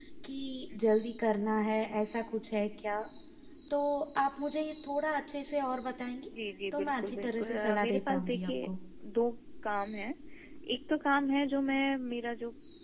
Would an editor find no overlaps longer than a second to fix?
No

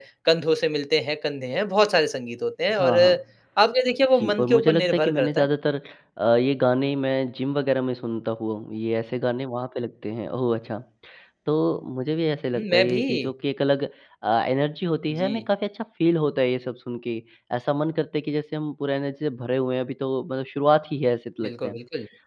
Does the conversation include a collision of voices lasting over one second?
Yes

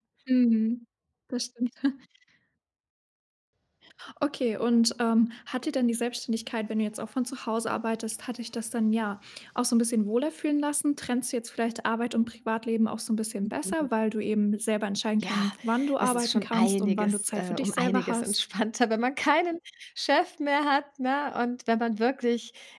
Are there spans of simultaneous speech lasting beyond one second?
Yes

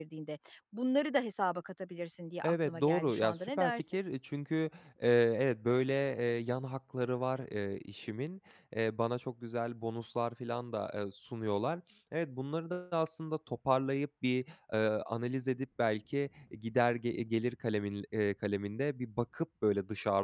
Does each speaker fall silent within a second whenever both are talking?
No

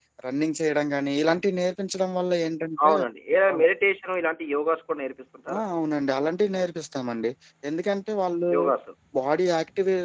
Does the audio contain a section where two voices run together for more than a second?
No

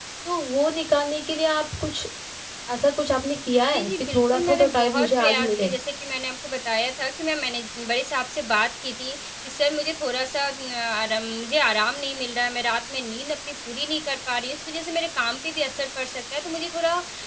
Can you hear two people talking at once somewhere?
Yes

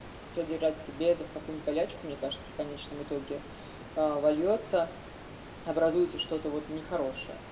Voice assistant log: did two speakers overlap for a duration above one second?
No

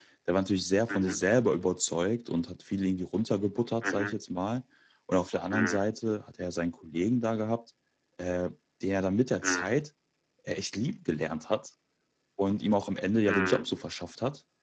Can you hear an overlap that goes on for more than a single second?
No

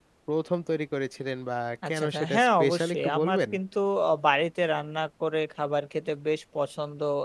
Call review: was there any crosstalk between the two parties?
Yes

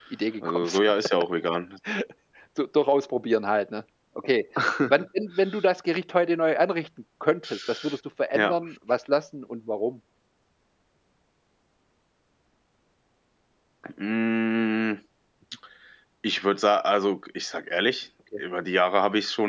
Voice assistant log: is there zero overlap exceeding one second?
Yes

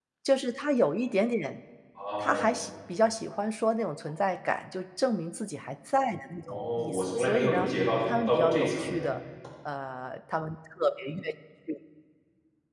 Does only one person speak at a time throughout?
No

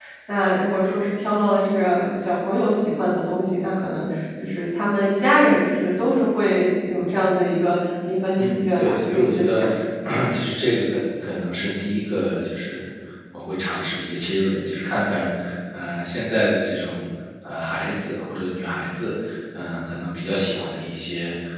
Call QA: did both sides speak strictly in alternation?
No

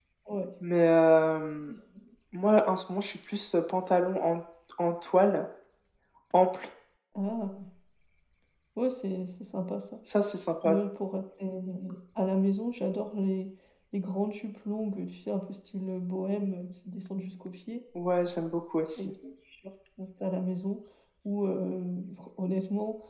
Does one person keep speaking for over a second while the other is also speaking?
No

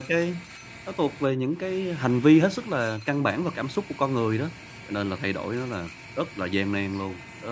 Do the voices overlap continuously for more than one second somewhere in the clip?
No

